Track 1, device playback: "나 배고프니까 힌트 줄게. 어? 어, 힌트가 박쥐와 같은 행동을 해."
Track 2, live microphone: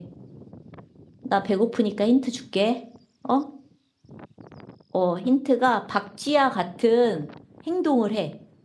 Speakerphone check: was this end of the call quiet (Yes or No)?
Yes